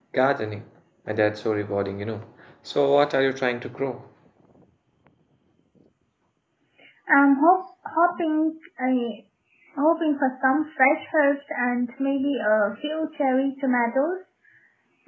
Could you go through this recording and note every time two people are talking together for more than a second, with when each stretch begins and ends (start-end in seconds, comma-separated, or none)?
none